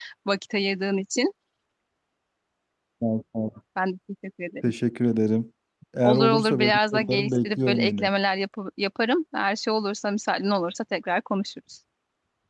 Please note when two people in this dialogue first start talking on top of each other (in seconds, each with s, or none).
6.0 s